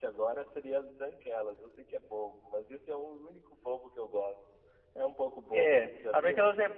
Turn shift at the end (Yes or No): Yes